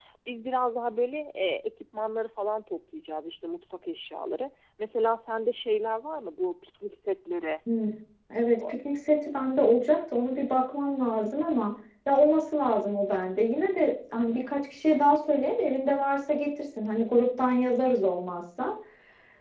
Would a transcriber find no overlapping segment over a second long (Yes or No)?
Yes